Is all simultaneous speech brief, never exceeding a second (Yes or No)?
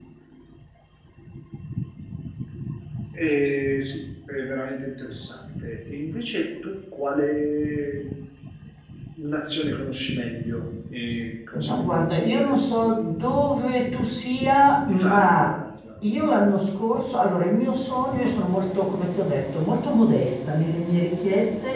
No